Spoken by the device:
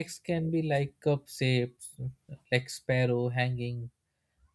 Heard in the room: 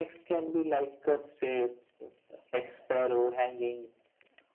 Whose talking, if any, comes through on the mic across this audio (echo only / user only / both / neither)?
echo only